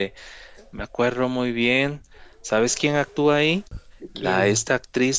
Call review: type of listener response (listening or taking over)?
listening